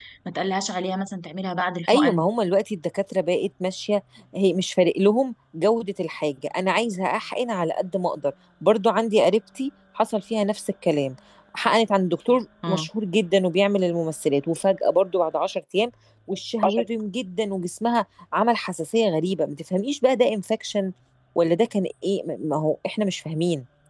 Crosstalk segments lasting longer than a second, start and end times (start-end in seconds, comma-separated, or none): none